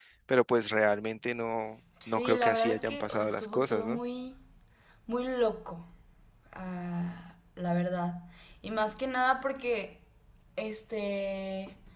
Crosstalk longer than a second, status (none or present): present